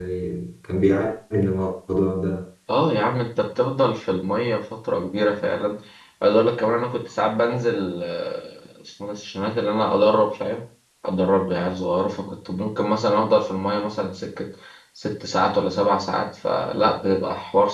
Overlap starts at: none

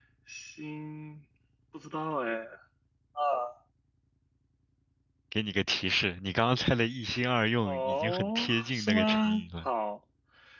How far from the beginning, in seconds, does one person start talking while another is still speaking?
7.7 s

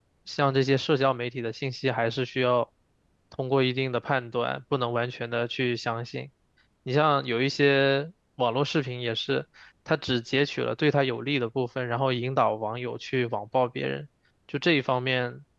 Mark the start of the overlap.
none

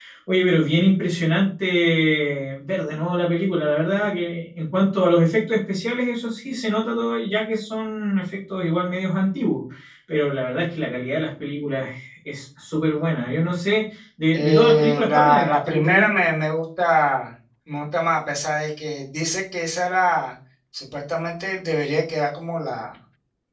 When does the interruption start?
14.3 s

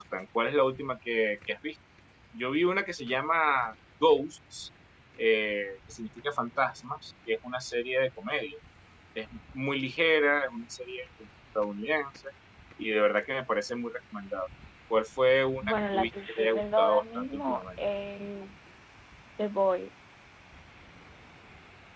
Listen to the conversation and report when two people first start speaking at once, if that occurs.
15.6 s

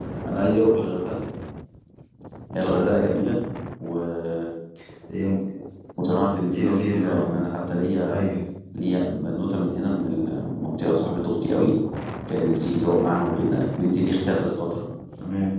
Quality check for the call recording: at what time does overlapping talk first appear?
6.5 s

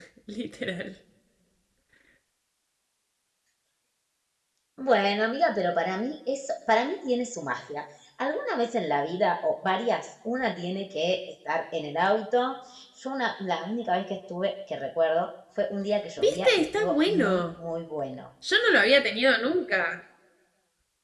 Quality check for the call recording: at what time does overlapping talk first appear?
16.2 s

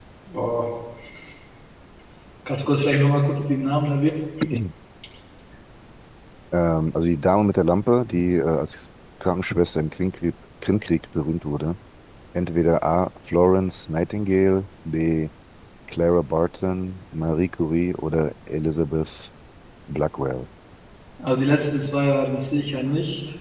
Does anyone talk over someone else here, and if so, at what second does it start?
none

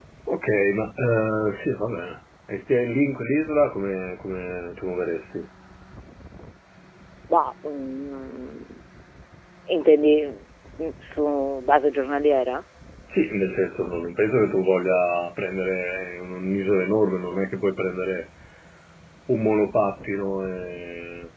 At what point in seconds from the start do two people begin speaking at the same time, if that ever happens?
none

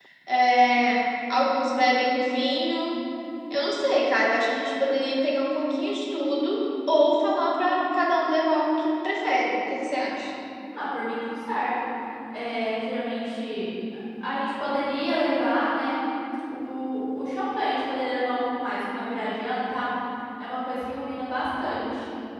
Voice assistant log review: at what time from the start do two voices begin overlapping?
none

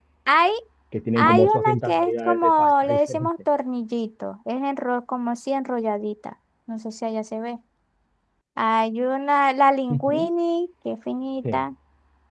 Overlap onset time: 1.1 s

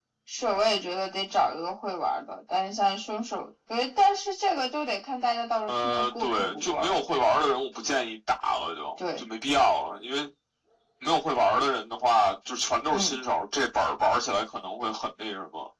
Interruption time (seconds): 5.7 s

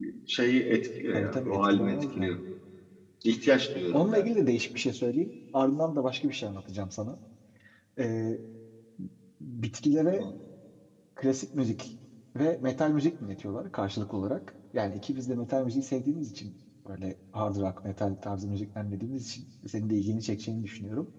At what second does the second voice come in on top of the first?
1.1 s

